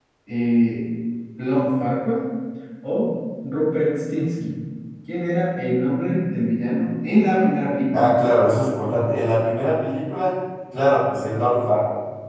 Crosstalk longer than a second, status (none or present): none